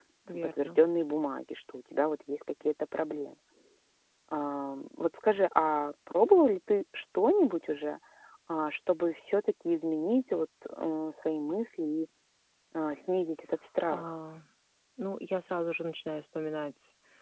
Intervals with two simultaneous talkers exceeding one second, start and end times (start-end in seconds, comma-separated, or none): none